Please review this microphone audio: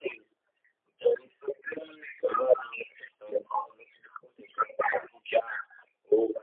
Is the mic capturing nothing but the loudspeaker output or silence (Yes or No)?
Yes